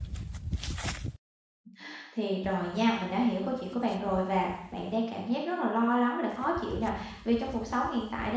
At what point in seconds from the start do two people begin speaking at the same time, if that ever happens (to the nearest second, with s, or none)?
none